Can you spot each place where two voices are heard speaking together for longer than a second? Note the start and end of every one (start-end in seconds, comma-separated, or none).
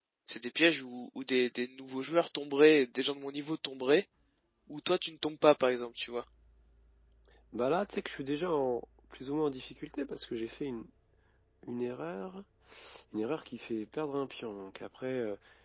none